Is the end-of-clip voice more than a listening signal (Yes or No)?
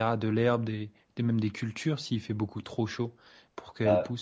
Yes